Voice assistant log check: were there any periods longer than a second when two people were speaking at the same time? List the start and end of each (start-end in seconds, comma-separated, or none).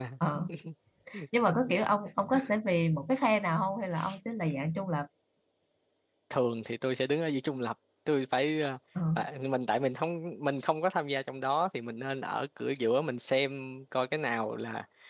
none